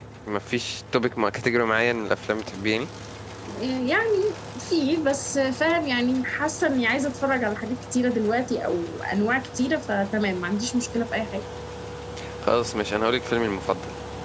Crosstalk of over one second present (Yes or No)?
No